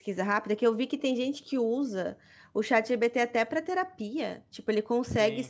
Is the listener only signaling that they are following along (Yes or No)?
Yes